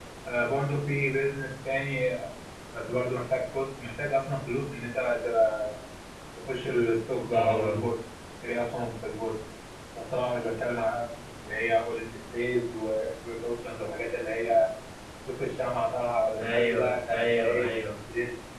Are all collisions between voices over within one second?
No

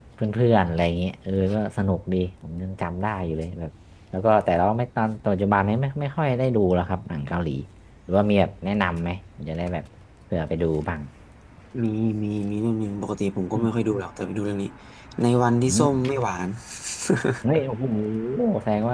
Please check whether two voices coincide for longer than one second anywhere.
No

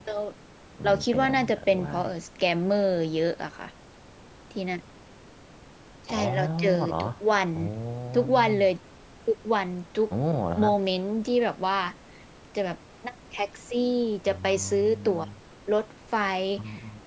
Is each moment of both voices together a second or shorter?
No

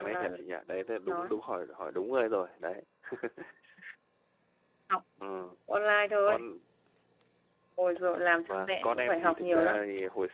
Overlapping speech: Yes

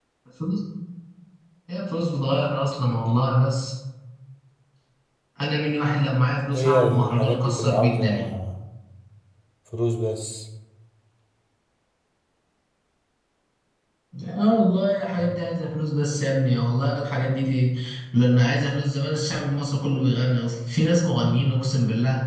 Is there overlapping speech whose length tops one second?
Yes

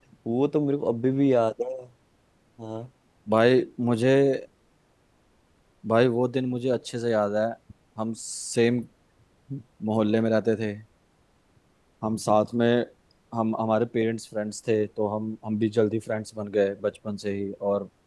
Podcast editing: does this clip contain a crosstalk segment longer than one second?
No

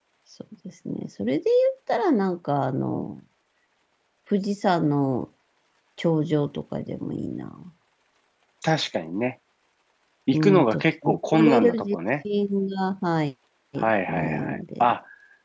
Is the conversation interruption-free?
No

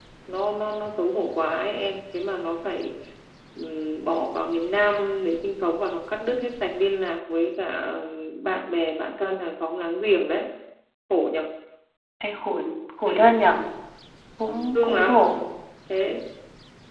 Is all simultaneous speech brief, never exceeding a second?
Yes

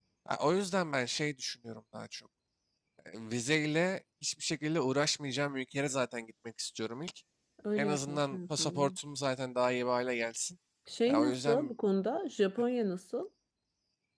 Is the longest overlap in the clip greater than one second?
Yes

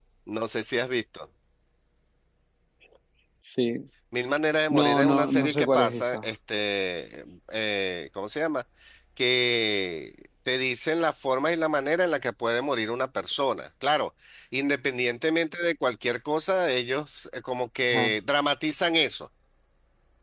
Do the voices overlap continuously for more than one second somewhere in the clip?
Yes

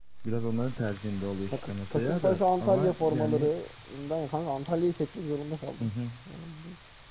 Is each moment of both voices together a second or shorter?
No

